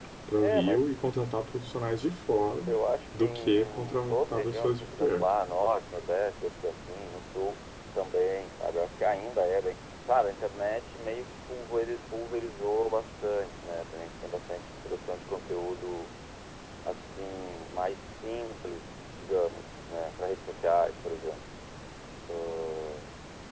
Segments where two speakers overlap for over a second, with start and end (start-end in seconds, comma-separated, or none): 3.2-5.3